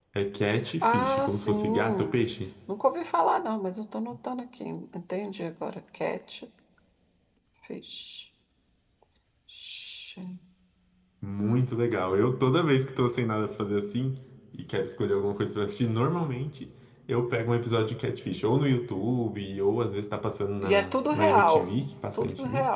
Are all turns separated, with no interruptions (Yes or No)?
No